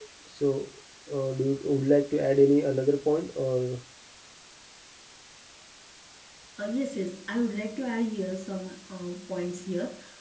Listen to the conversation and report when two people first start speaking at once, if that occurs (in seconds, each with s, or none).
none